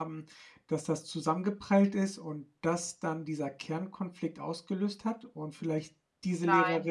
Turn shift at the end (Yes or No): Yes